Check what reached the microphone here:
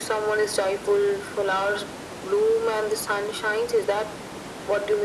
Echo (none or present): present